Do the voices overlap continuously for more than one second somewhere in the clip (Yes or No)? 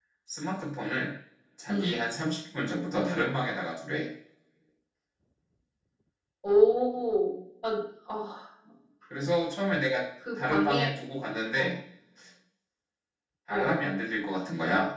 No